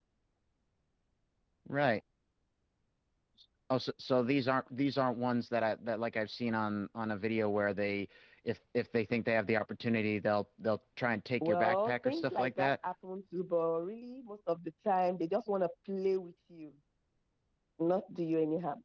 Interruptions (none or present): present